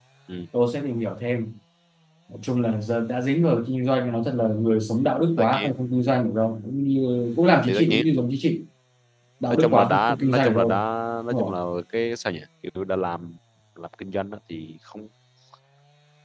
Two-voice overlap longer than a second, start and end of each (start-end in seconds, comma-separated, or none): 9.5-10.7